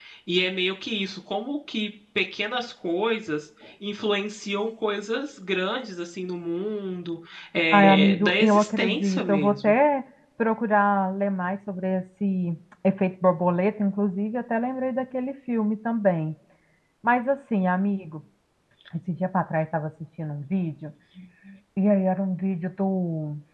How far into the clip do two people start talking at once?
7.7 s

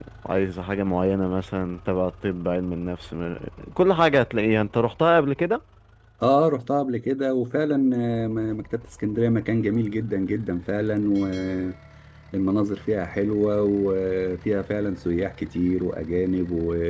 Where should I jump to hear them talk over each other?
none

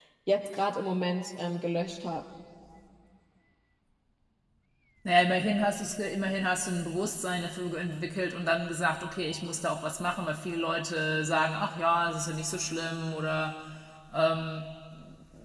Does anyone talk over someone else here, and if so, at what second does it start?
none

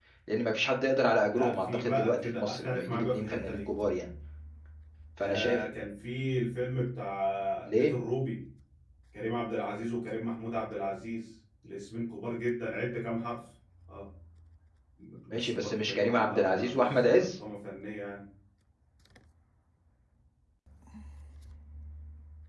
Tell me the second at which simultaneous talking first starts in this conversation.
1.3 s

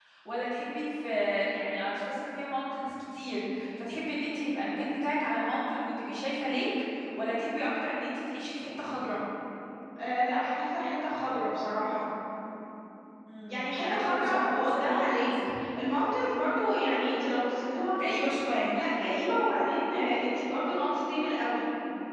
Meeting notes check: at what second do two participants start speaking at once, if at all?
13.5 s

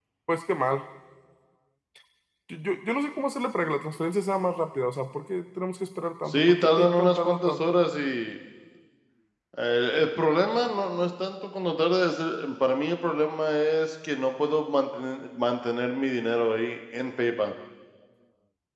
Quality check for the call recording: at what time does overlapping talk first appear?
6.3 s

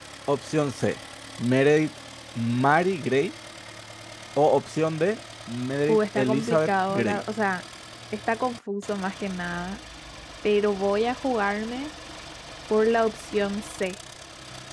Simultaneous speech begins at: 5.9 s

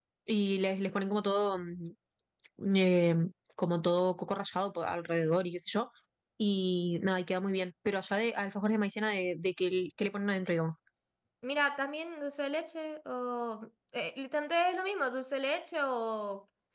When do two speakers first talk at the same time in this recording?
none

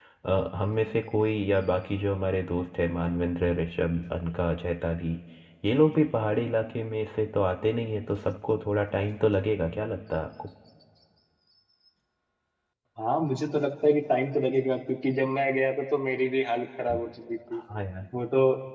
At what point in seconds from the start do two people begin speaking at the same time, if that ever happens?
none

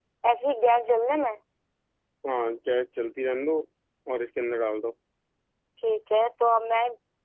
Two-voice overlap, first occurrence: none

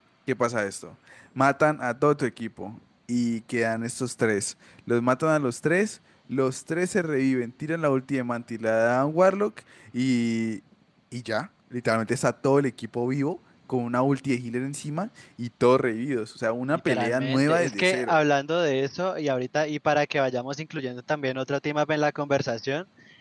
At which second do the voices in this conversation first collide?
16.7 s

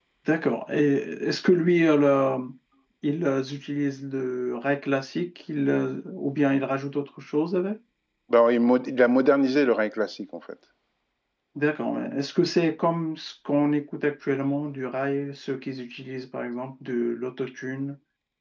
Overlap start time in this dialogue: none

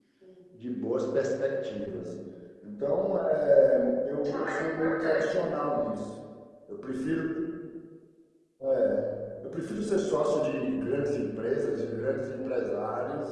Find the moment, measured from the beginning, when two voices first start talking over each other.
4.2 s

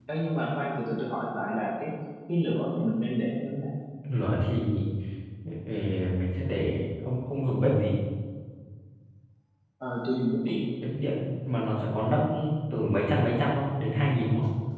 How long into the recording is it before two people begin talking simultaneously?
none

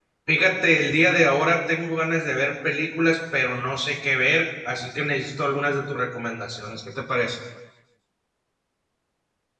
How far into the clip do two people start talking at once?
none

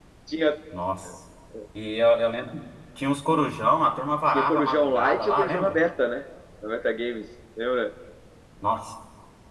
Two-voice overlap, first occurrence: 4.3 s

